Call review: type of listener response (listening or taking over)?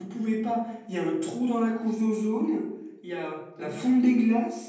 listening